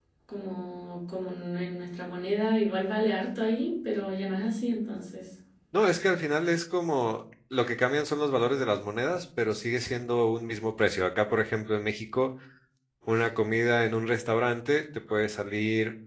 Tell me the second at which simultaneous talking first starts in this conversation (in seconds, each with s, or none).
none